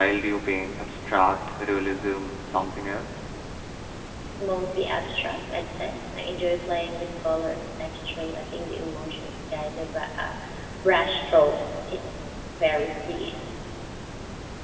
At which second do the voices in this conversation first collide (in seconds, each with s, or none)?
none